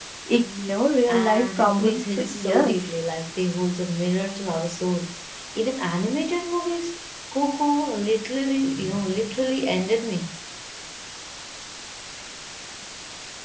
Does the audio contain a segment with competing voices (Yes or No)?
Yes